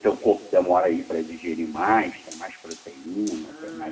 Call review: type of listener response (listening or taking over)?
taking over